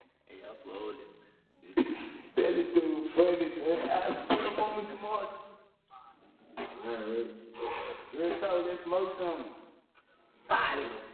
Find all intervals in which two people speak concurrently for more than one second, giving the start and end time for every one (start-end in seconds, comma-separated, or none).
none